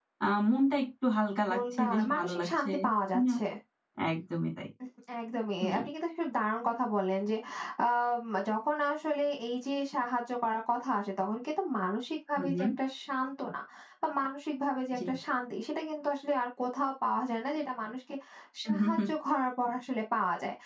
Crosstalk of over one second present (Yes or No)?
Yes